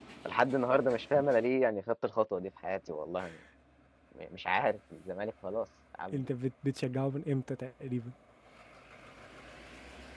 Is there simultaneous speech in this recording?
No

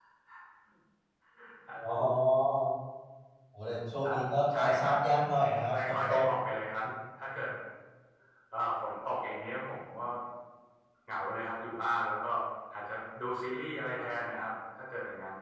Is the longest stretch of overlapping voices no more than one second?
Yes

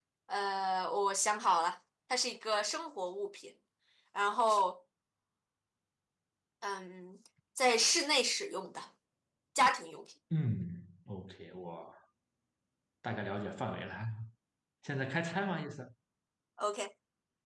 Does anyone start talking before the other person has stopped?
No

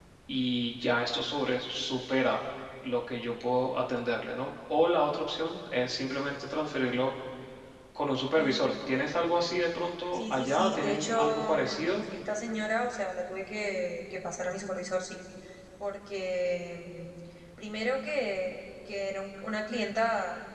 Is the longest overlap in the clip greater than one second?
Yes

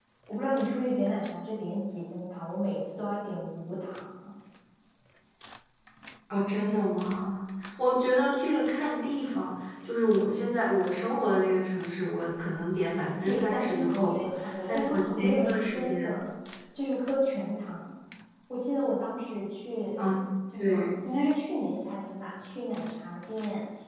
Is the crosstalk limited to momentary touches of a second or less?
No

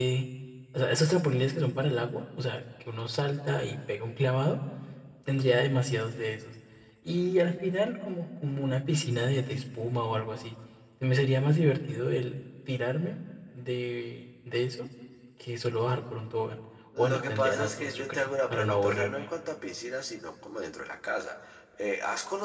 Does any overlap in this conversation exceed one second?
Yes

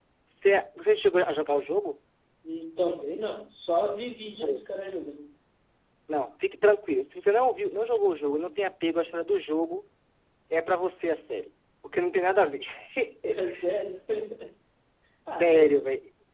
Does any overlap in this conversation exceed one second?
No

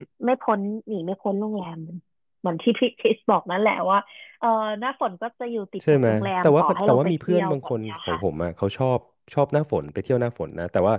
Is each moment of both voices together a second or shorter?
No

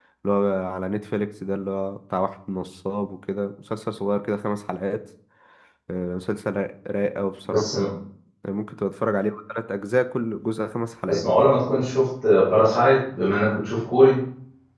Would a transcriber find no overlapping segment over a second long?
Yes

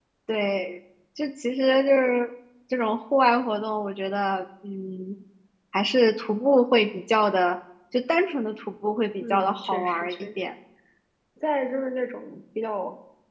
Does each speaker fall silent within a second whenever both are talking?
No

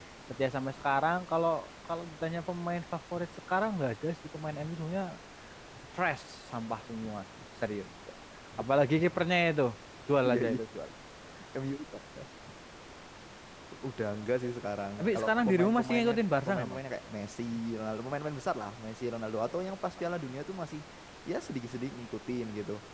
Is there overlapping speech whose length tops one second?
Yes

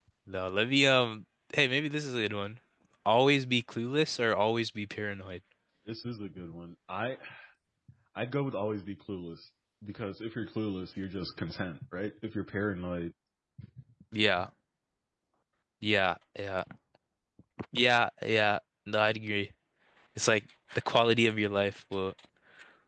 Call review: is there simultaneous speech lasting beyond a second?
No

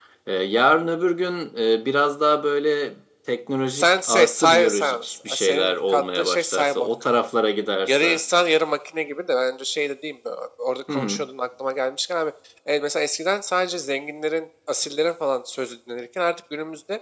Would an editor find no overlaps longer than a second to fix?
No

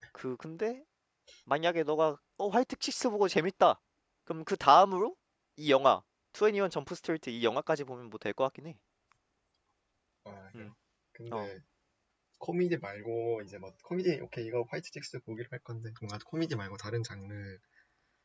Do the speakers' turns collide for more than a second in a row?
No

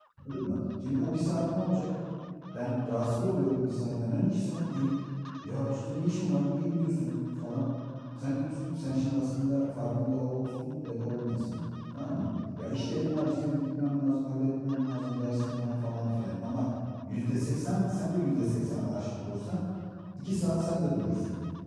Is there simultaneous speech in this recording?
No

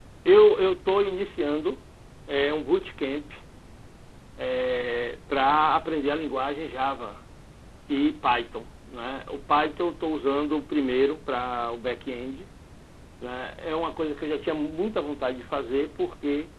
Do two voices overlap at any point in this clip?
No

